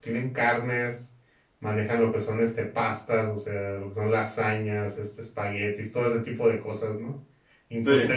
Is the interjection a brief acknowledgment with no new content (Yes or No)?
Yes